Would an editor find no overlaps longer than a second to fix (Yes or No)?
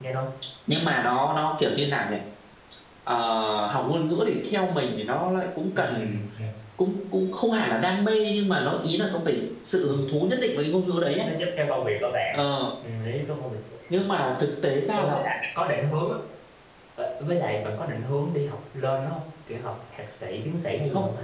Yes